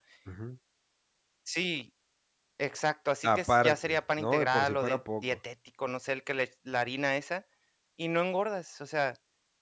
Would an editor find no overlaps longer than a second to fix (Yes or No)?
No